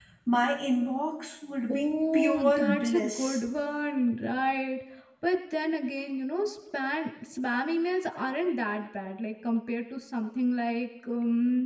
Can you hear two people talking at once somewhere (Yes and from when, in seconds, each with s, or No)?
Yes, from 1.7 s